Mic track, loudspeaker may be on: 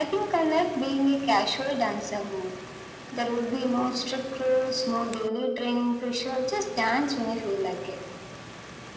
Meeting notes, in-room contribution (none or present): none